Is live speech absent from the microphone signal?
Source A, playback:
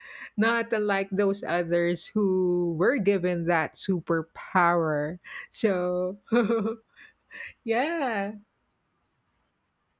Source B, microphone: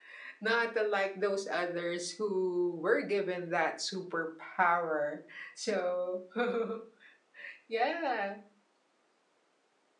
Yes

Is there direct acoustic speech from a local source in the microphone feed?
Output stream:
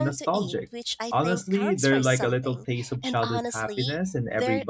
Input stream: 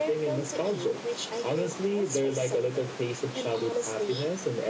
No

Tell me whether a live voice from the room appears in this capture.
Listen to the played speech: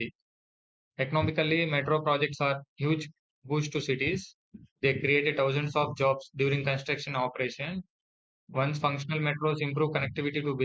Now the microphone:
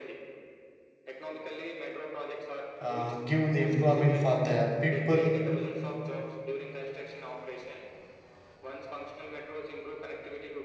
Yes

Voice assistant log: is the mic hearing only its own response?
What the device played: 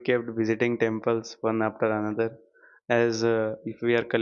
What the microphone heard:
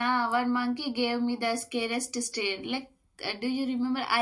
No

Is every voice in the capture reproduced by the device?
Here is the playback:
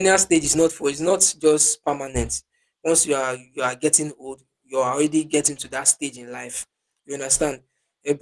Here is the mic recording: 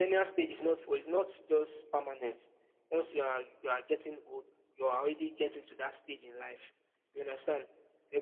Yes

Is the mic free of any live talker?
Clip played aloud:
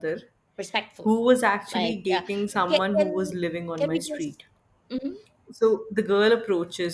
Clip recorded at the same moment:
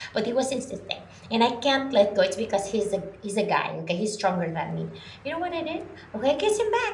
No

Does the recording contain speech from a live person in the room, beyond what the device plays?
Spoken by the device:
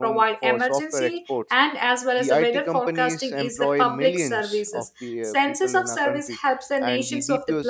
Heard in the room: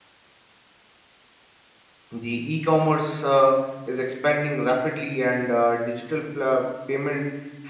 Yes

